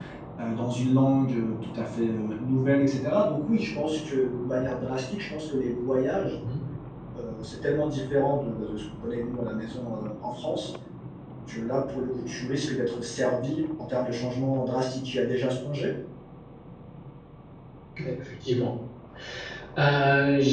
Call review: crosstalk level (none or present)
none